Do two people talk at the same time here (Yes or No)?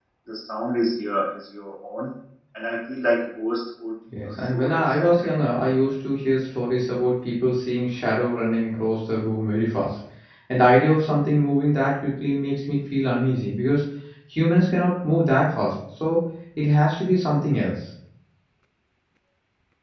Yes